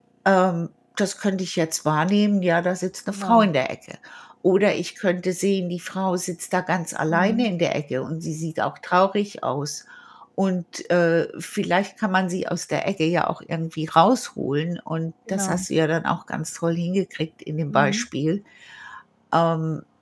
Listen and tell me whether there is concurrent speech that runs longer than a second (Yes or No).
No